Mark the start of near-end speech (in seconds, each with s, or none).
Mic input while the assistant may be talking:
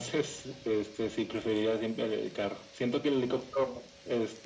none